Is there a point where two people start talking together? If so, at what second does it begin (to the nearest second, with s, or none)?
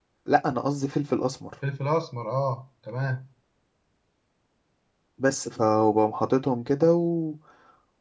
none